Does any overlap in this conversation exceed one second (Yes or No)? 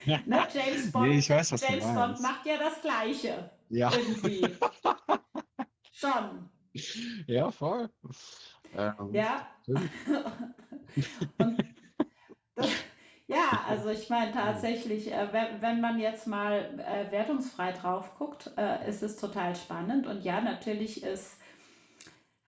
Yes